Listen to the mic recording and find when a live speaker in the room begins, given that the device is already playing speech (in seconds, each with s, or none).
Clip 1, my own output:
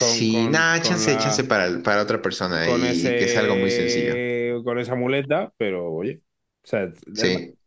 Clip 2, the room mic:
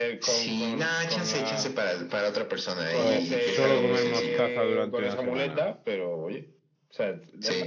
3.0 s